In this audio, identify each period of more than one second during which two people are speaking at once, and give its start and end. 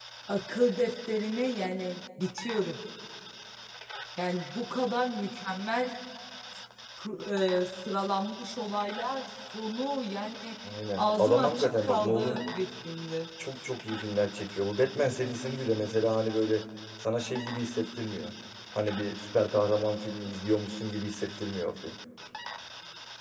11.0-12.4

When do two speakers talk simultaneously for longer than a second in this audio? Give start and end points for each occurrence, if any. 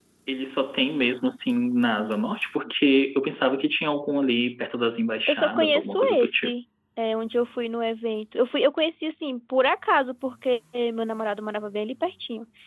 5.3-6.5

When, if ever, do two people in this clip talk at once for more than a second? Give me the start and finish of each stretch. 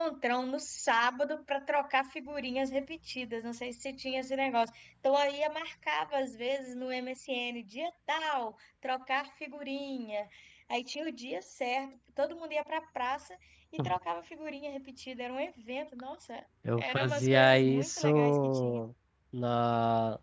16.8-18.8

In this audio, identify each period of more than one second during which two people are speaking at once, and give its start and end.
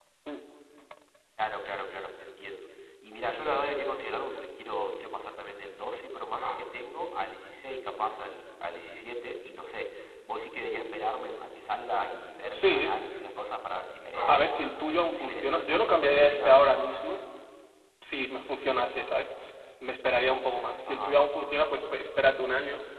15.2-16.6

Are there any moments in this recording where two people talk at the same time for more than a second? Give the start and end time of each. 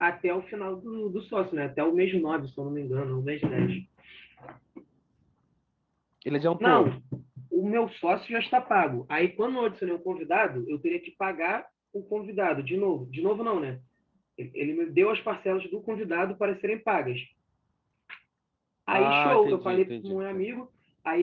18.9-20.4

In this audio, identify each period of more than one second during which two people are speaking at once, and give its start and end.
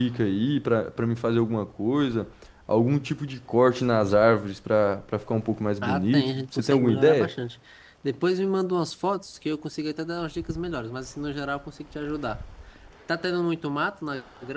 5.8-7.3

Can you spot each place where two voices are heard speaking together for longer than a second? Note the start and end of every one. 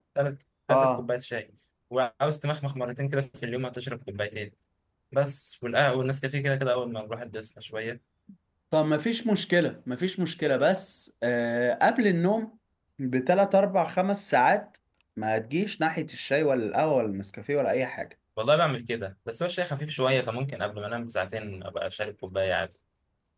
none

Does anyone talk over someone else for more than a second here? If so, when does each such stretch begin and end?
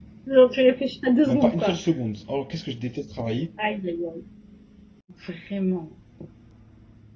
none

